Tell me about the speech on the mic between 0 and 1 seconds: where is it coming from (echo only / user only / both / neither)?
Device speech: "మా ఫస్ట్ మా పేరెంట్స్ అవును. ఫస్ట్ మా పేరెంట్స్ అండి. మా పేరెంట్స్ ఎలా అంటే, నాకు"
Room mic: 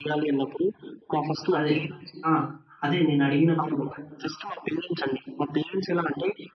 echo only